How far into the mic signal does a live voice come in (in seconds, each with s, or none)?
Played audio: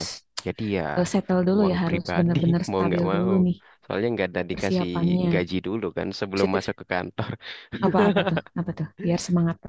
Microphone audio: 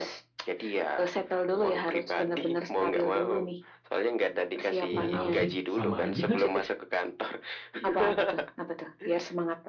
4.9 s